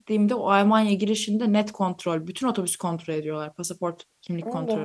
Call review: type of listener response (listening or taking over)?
taking over